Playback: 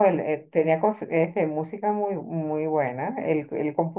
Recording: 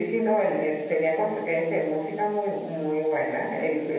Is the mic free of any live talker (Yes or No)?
Yes